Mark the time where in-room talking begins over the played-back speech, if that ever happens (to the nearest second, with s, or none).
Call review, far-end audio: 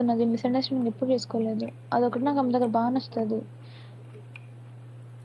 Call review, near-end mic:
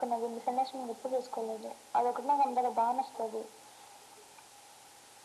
none